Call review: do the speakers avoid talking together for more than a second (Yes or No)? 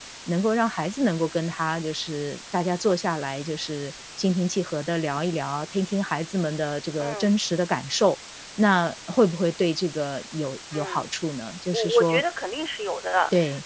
Yes